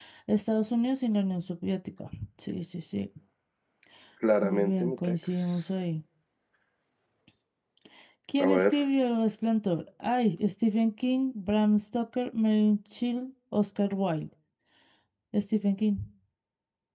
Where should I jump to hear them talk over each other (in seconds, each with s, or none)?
4.4 s